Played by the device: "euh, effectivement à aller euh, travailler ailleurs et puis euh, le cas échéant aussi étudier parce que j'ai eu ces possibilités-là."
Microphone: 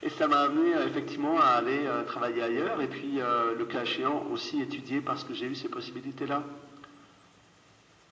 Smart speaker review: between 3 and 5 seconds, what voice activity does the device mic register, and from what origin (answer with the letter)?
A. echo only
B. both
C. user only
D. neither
A